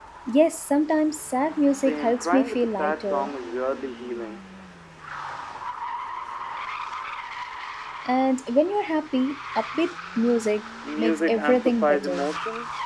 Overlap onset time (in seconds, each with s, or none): 1.7 s